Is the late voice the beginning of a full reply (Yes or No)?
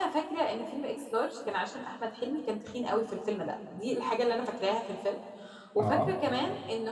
No